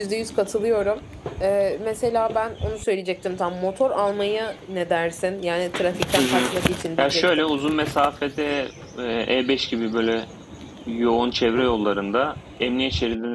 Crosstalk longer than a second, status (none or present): none